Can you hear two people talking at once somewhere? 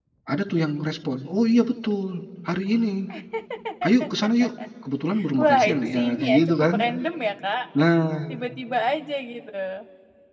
Yes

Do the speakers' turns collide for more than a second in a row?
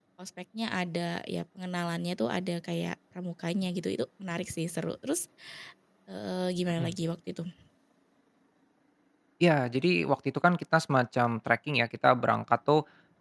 No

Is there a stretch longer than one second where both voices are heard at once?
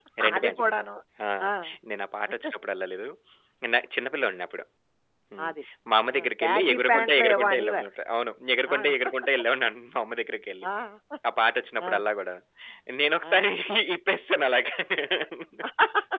Yes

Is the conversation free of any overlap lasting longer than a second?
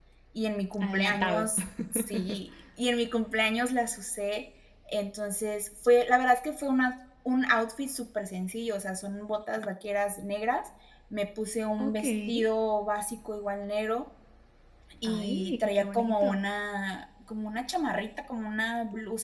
No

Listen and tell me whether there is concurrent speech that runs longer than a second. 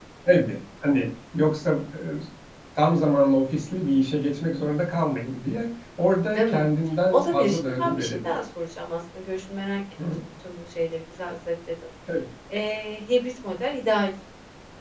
Yes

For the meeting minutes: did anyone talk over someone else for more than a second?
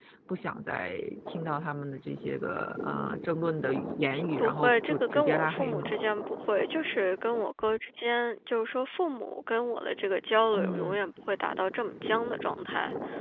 Yes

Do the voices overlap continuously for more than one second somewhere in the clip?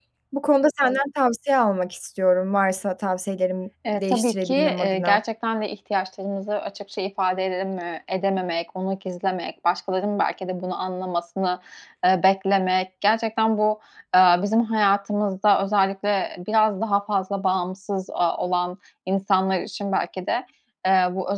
Yes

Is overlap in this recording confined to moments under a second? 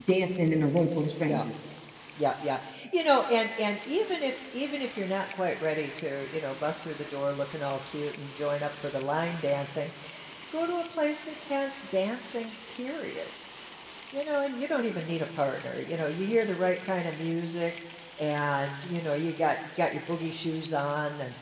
Yes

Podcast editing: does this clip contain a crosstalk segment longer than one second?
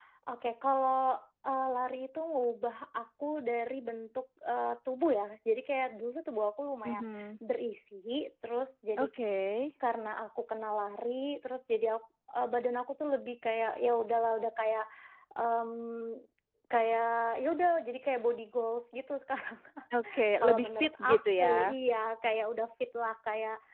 Yes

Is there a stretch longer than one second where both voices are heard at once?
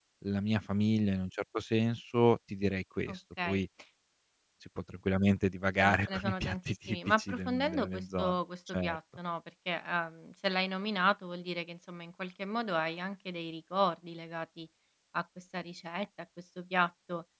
Yes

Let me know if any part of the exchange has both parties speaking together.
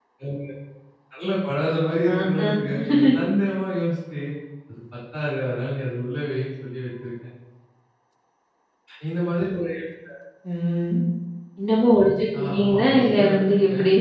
Yes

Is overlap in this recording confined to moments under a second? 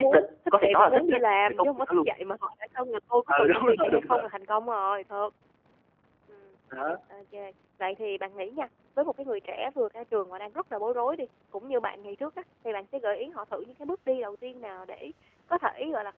No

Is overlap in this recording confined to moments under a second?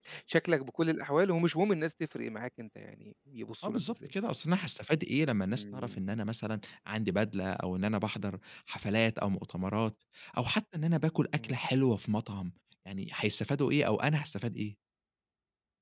Yes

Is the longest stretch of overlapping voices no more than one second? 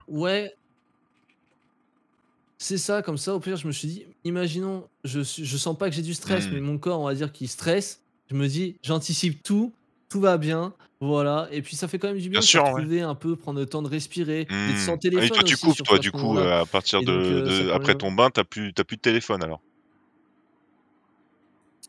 No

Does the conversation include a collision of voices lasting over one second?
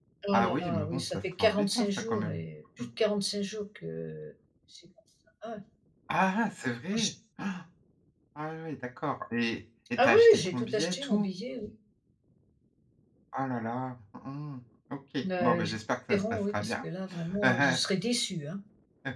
Yes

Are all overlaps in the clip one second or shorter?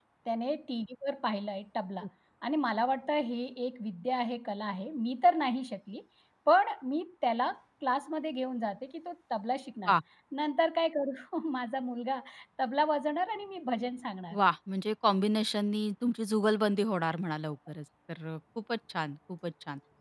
Yes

